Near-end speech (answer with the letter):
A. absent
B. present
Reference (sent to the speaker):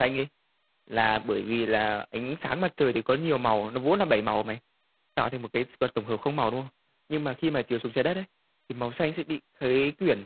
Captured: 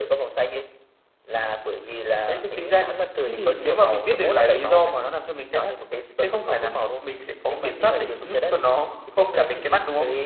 B